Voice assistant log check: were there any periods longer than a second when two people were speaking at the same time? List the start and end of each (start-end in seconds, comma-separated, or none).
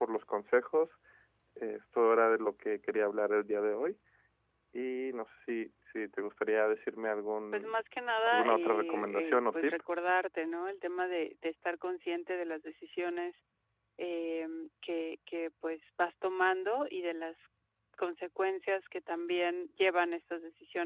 8.2-9.7